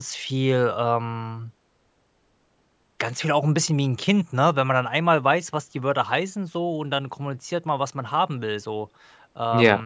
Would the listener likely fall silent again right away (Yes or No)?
Yes